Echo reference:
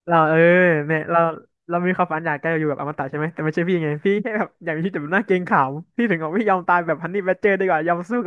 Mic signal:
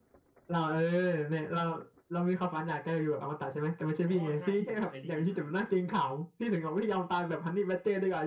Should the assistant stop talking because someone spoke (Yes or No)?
Yes